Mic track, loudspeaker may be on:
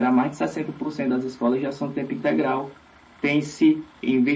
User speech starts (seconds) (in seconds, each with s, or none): none